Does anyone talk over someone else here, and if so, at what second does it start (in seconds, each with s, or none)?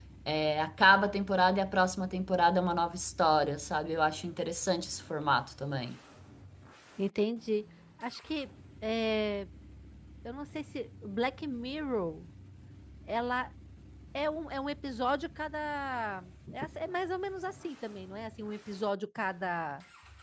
none